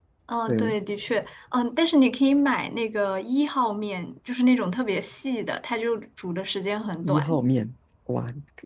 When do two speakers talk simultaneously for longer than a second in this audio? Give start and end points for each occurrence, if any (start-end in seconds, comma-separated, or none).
none